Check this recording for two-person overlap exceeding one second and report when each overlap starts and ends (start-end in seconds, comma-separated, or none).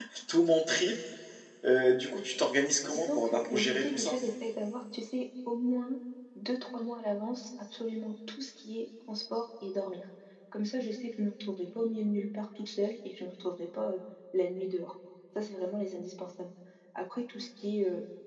2.9-4.2